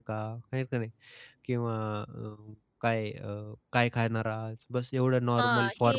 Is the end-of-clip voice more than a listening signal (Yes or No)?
Yes